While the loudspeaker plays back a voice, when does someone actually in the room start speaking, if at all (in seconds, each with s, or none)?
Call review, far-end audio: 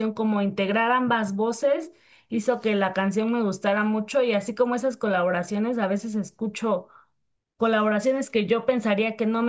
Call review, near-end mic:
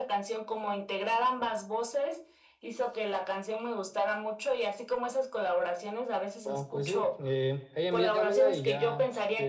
6.5 s